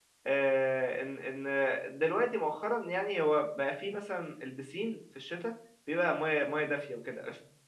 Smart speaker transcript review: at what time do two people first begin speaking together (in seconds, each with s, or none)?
none